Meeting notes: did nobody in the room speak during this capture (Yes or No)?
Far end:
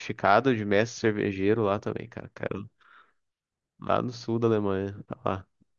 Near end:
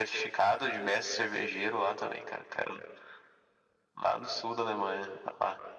Yes